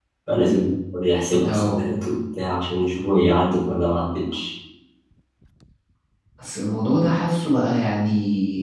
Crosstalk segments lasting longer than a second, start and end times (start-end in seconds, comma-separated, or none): none